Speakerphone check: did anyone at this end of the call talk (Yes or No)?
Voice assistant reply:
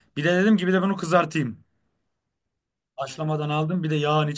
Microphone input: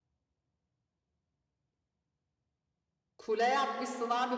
Yes